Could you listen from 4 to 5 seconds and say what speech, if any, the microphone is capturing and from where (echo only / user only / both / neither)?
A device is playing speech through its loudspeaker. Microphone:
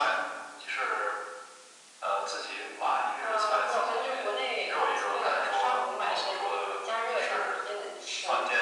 echo only